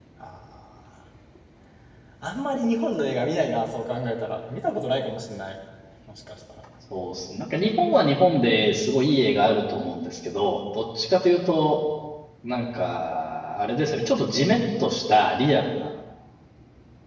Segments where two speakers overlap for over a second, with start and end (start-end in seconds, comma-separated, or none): none